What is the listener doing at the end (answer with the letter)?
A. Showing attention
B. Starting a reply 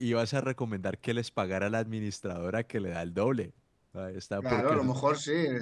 B